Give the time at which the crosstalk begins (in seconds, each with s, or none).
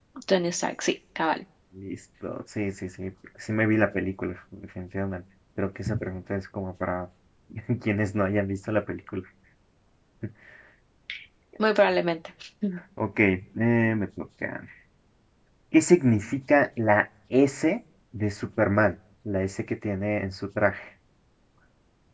none